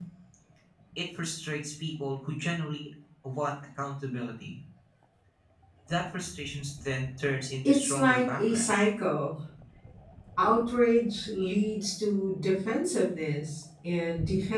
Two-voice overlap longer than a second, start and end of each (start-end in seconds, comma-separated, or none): 7.7-8.8